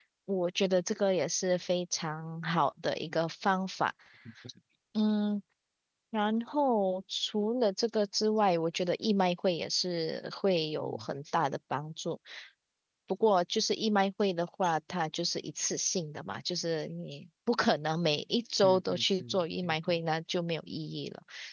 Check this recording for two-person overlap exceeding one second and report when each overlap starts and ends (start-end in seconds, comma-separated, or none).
18.6-20.0